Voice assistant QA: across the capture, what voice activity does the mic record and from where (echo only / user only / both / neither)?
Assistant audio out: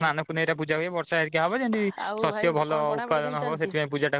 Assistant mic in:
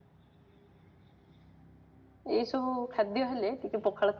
user only